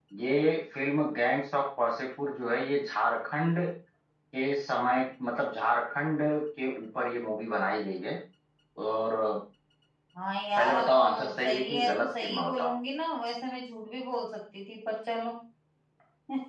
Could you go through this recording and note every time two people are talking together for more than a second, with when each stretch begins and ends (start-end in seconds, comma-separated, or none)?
10.6-12.7